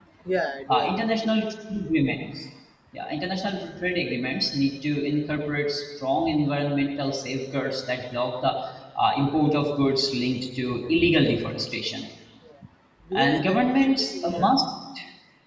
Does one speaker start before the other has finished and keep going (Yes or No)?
Yes